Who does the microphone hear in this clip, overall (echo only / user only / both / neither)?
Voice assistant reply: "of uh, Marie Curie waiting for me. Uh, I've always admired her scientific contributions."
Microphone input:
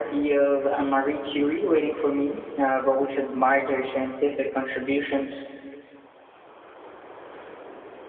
echo only